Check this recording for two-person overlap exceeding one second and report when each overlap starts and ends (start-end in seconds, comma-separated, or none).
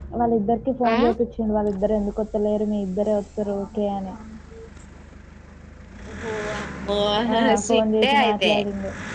7.3-8.5